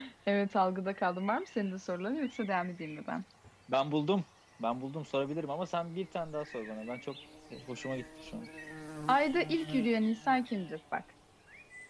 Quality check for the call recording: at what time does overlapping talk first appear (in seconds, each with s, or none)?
none